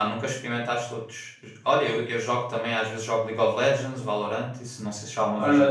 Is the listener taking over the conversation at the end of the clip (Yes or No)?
Yes